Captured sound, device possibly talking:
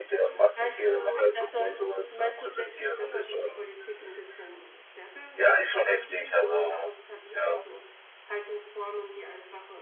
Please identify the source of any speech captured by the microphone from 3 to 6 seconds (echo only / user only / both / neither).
both